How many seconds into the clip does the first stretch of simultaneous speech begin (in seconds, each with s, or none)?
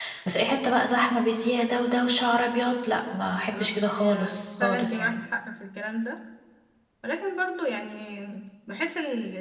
3.4 s